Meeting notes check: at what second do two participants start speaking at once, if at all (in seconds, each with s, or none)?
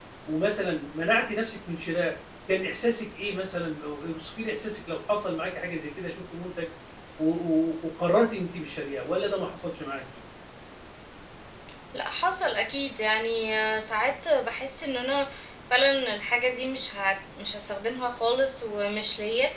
none